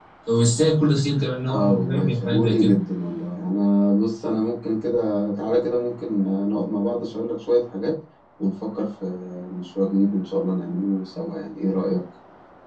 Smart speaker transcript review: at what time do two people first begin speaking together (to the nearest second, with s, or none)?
1 s